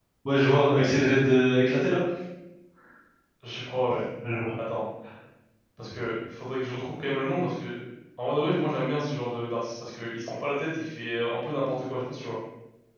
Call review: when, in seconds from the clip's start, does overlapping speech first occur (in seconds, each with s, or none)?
none